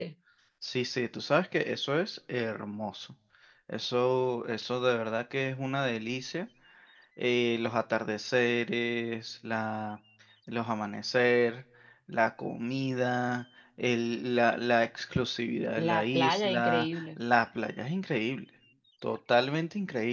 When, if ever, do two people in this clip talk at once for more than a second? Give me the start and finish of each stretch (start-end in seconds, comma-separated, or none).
15.8-17.2